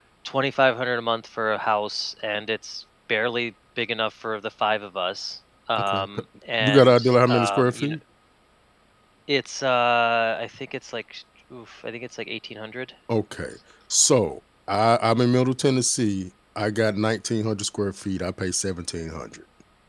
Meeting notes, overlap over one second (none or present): present